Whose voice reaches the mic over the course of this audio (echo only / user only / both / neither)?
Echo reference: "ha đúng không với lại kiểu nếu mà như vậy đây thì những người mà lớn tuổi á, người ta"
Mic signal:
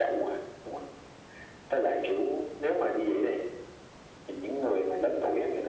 echo only